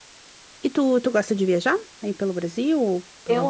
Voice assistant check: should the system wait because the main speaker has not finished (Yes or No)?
No